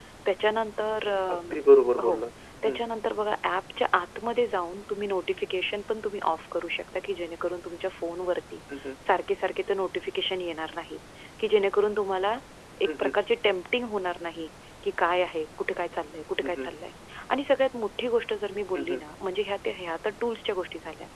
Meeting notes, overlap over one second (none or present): none